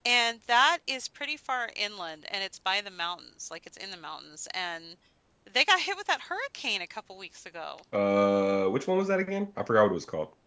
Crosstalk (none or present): none